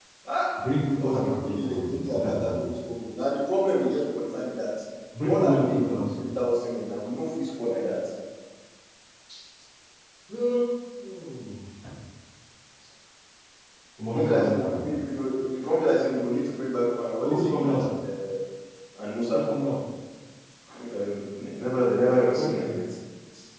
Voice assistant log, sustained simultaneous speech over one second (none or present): present